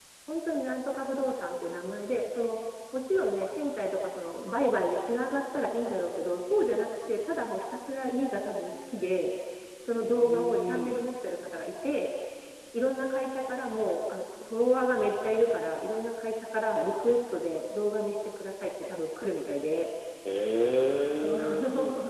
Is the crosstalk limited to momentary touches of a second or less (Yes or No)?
No